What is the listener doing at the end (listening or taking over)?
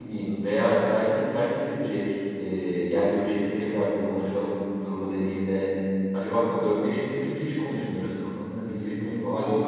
taking over